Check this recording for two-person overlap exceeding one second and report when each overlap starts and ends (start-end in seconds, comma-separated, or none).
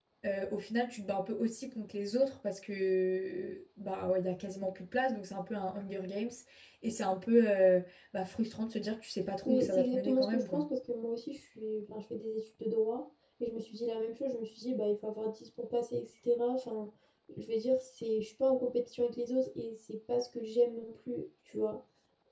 9.4-10.6